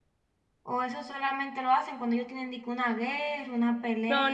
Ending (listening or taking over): taking over